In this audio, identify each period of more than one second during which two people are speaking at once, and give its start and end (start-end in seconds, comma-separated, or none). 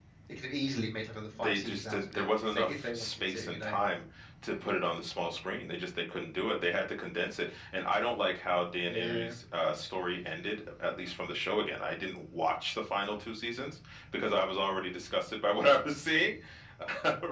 1.4-3.8